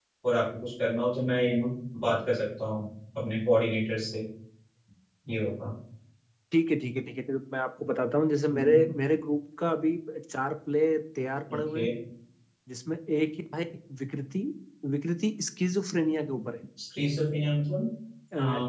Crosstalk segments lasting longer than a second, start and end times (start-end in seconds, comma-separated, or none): none